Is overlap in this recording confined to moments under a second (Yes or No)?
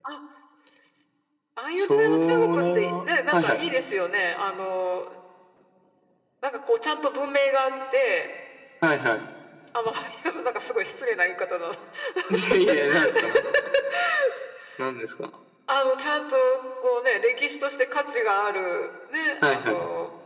No